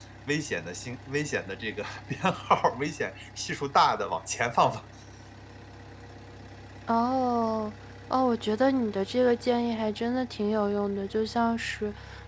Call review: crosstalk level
none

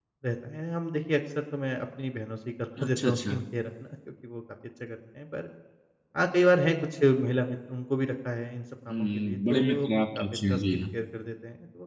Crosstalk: present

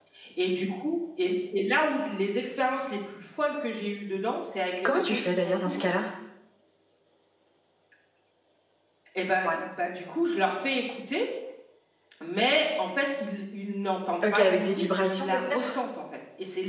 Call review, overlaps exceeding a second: present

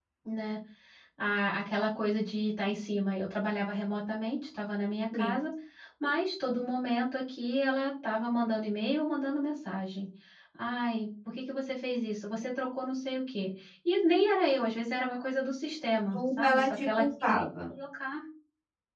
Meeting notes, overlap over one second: present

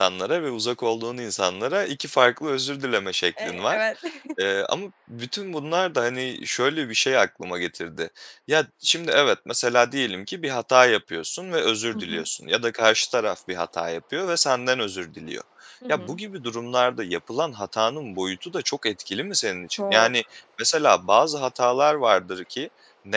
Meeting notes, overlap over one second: none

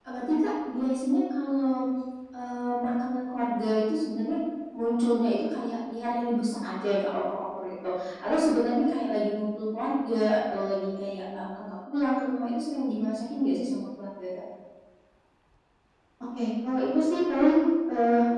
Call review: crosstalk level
none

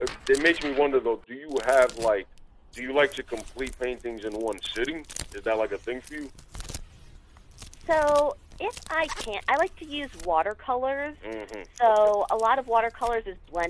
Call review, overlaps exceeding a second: none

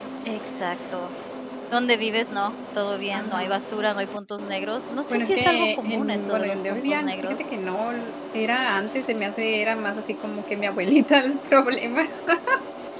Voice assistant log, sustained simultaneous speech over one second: present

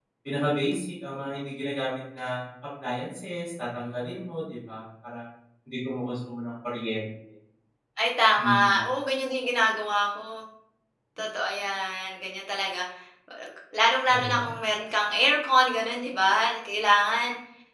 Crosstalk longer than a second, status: none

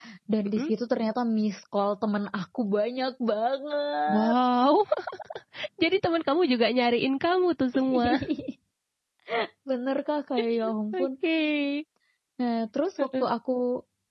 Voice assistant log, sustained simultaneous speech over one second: none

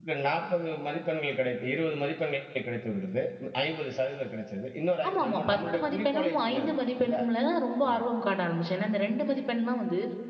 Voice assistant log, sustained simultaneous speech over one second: present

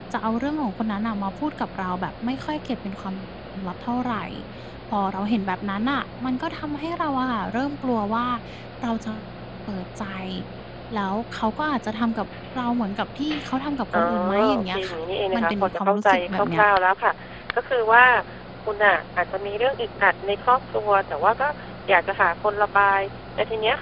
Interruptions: present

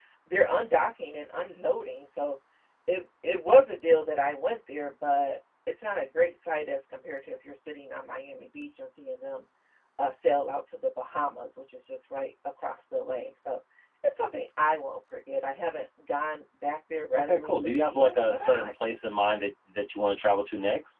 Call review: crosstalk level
present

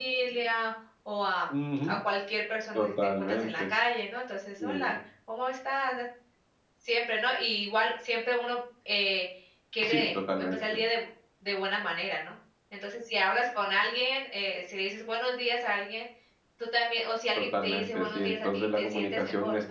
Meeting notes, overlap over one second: present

